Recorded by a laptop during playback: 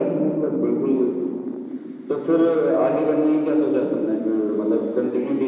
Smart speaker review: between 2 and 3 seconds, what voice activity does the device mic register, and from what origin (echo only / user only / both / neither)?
echo only